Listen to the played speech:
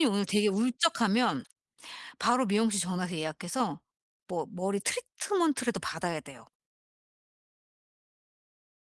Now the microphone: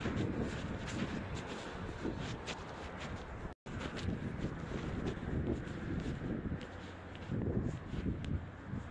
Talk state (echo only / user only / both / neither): neither